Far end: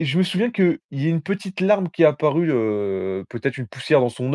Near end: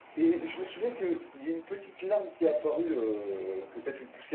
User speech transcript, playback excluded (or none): none